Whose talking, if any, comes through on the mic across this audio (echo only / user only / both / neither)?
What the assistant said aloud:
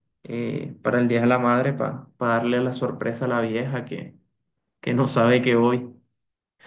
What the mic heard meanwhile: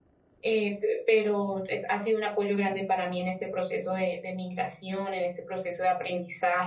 user only